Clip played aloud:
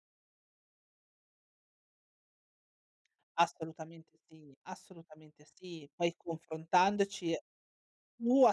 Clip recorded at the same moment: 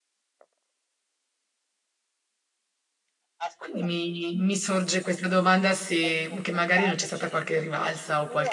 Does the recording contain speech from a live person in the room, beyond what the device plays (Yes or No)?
Yes